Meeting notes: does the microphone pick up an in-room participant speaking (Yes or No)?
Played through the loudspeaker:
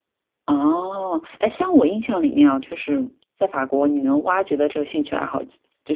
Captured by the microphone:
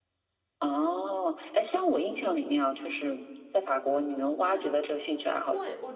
Yes